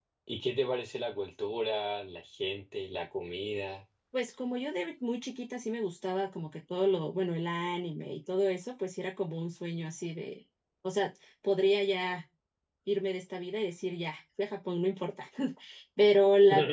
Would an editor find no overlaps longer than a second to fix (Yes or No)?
Yes